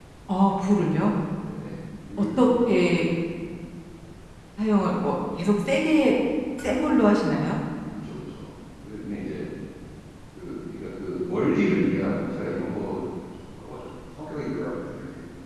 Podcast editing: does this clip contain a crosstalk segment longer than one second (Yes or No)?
No